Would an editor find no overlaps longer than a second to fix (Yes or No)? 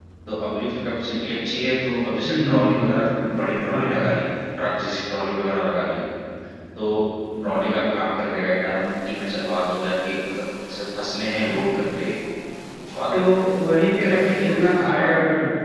No